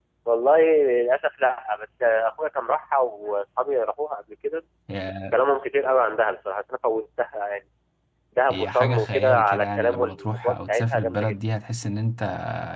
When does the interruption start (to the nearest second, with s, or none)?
9 s